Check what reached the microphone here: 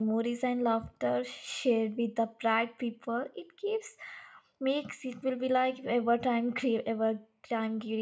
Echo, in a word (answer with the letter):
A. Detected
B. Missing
B